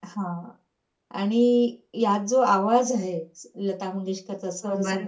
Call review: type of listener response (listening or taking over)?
listening